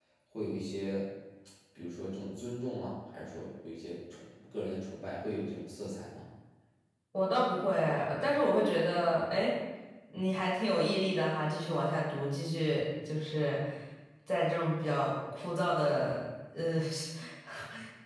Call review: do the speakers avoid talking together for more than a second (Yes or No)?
Yes